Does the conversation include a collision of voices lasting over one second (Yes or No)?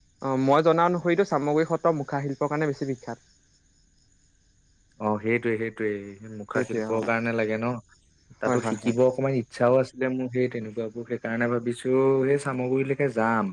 No